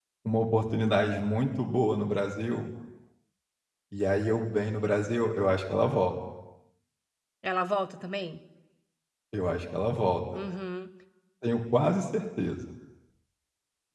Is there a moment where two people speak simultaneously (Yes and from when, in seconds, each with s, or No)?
No